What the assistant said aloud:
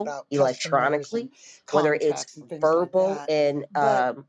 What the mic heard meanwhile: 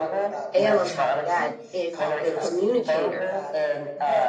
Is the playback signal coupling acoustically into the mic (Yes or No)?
Yes